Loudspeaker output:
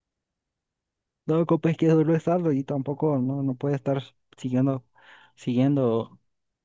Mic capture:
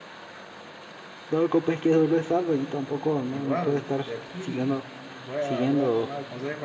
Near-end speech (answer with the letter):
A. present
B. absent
A